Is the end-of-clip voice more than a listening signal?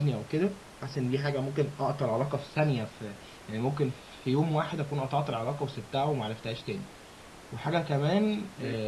No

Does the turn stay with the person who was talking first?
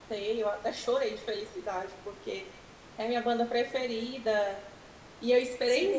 No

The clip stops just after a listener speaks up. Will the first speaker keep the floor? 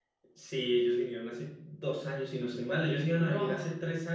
Yes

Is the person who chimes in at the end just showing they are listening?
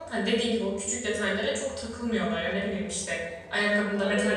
Yes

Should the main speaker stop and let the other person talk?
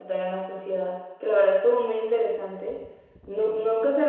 No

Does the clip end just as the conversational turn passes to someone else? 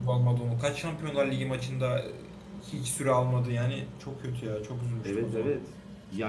Yes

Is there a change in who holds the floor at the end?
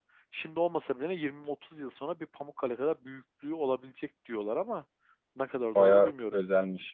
Yes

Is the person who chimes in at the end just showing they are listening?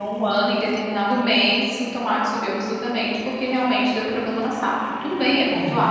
Yes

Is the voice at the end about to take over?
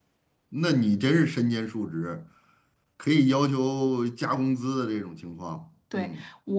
Yes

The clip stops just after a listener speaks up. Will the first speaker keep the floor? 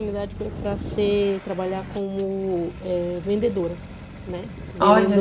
Yes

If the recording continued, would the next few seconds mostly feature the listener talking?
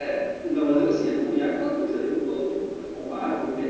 No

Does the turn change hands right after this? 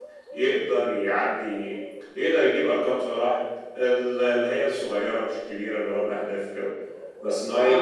No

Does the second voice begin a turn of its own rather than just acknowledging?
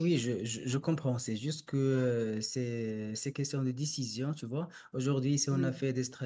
No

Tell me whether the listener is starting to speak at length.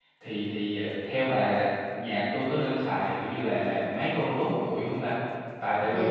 No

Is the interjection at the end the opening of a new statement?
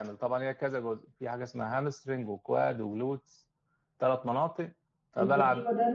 Yes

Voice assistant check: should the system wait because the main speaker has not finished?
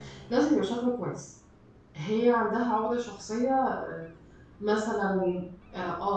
Yes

